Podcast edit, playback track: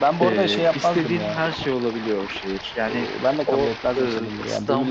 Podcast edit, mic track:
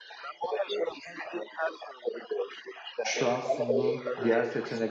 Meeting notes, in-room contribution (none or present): present